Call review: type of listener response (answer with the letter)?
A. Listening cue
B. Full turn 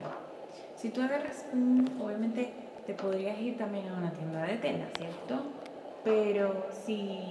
A